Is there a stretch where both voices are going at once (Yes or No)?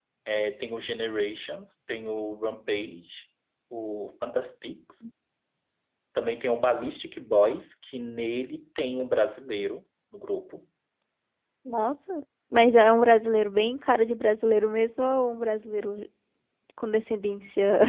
No